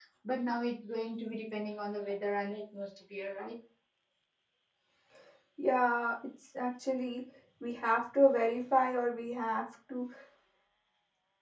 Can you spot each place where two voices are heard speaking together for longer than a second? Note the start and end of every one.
none

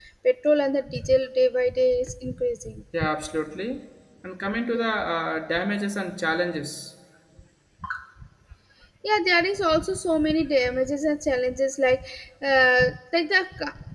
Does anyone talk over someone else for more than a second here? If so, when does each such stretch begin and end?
none

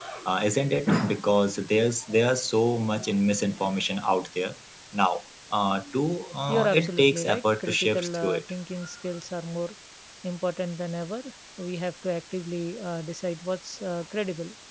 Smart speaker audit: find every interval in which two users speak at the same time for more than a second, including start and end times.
6.5-8.4

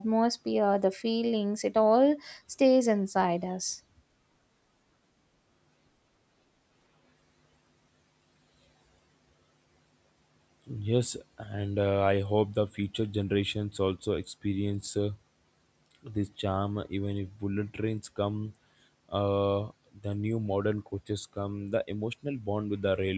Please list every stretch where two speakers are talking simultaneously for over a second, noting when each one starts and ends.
none

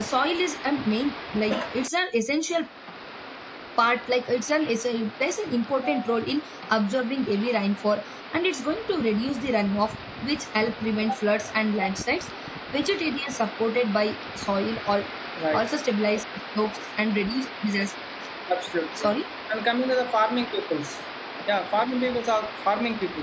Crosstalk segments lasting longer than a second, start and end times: none

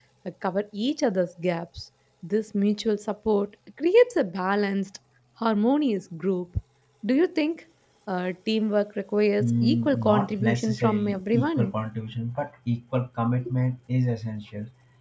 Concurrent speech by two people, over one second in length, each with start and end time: 9.4-11.7

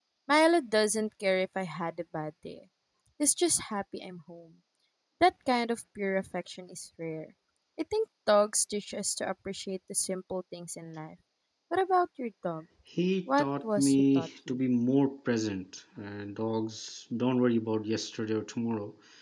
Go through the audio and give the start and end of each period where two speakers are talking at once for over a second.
13.4-14.6

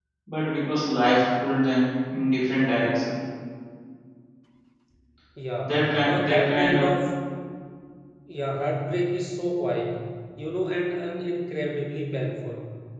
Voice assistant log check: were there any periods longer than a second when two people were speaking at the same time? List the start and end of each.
5.7-6.9

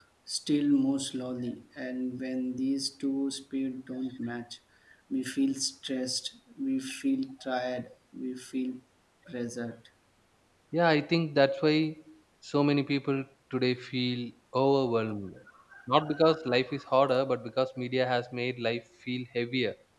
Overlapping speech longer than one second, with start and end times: none

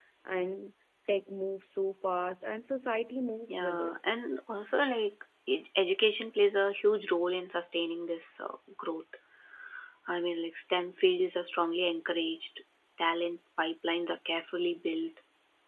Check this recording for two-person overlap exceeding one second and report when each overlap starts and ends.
none

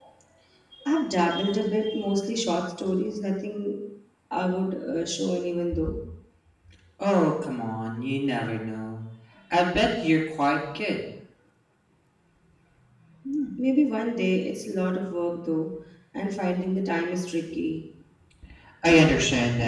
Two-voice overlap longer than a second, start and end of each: none

